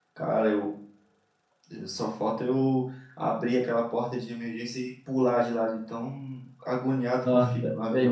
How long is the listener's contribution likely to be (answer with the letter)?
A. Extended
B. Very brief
A